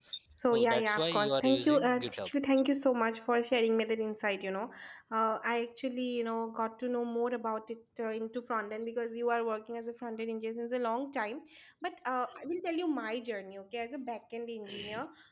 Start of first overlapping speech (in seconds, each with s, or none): 0.5 s